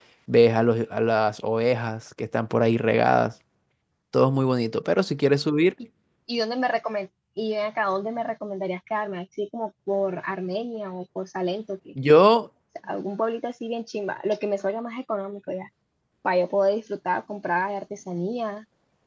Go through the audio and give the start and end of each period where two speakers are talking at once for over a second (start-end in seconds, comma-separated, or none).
none